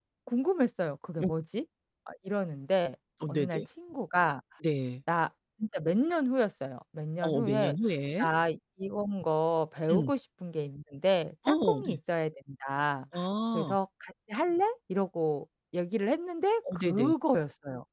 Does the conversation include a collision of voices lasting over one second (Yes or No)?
No